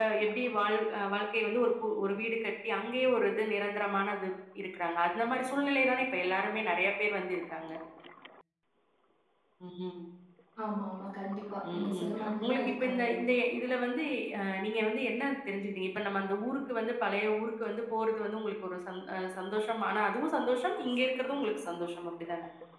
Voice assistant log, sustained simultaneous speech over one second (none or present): present